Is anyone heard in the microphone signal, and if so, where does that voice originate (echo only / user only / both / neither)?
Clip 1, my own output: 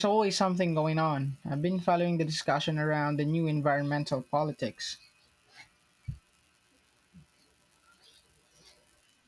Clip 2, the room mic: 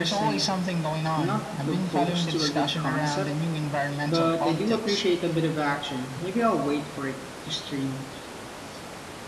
both